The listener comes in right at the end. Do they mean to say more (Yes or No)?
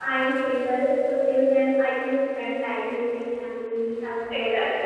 Yes